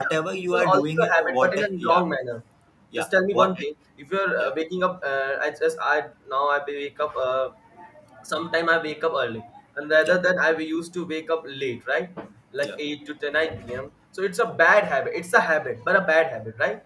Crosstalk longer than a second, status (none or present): present